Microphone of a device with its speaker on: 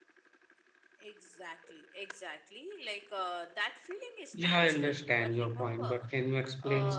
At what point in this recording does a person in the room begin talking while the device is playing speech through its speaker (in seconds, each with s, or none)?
4.3 s